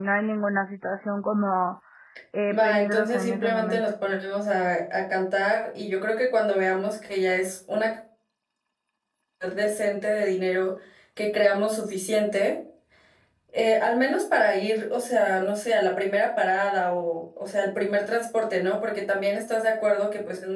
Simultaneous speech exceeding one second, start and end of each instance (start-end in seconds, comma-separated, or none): 2.5-3.9